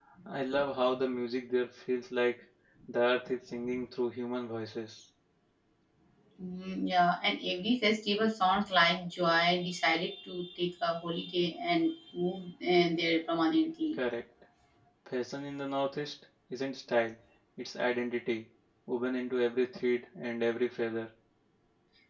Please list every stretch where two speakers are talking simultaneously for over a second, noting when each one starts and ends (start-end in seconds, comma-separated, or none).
none